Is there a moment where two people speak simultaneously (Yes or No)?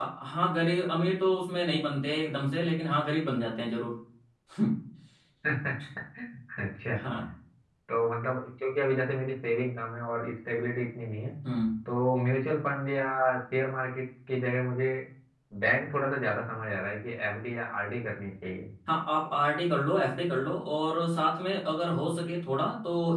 No